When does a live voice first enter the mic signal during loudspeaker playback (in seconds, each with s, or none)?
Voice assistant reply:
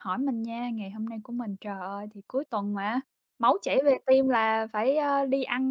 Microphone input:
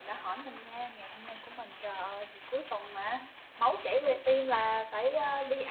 none